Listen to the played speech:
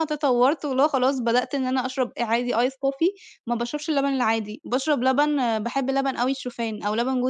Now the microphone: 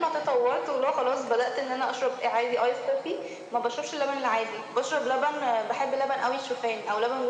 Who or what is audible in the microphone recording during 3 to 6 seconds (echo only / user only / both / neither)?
echo only